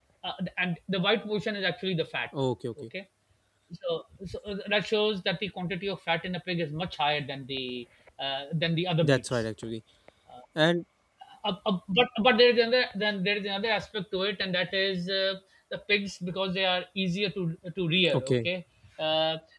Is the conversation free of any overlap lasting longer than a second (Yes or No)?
Yes